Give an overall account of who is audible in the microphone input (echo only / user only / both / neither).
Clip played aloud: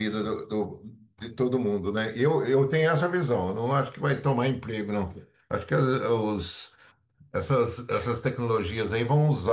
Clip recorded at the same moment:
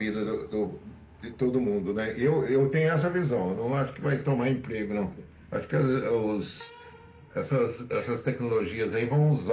echo only